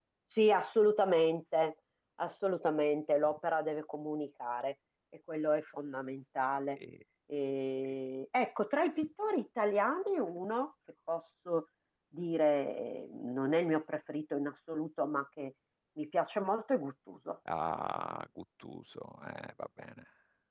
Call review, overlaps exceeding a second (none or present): none